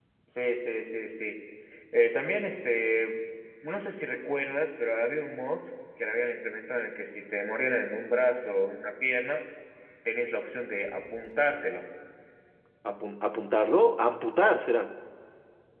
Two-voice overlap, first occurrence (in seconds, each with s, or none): none